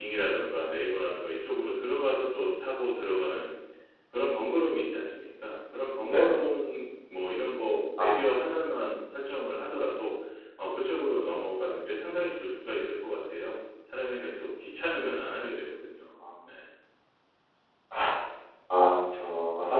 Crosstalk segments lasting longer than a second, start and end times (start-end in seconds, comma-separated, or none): none